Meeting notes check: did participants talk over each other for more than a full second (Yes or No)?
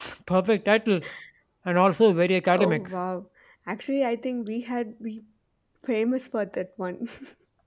No